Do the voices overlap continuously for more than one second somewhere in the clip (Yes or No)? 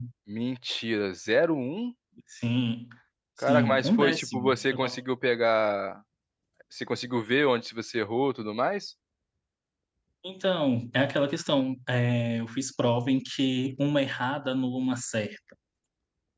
Yes